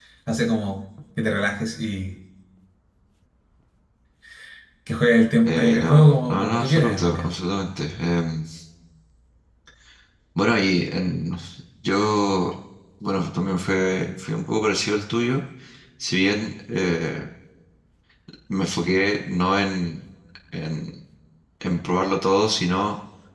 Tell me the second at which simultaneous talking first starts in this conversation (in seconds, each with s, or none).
5.5 s